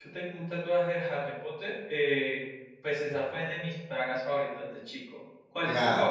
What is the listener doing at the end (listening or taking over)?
taking over